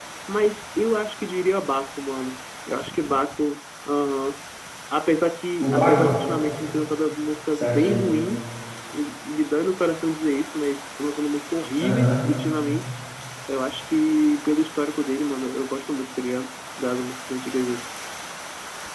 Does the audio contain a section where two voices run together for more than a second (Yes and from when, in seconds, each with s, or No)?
No